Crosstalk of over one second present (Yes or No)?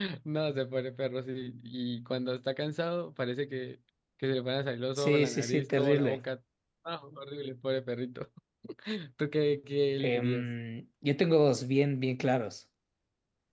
Yes